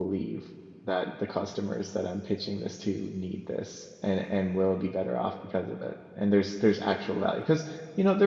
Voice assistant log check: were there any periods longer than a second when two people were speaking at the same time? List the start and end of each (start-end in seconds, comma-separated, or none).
none